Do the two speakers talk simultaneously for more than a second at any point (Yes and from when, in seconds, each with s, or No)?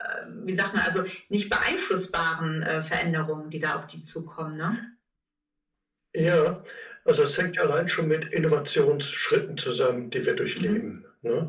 No